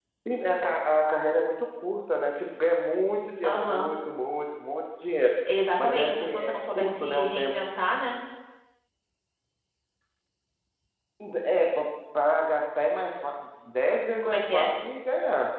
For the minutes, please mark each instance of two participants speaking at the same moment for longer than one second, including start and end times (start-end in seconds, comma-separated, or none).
5.8-7.5